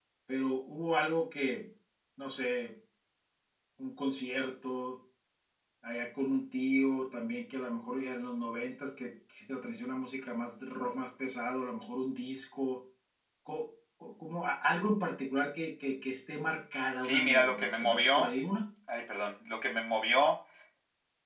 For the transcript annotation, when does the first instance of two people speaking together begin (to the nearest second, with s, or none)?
17 s